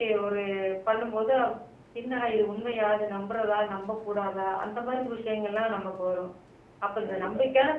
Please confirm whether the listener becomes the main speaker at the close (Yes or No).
No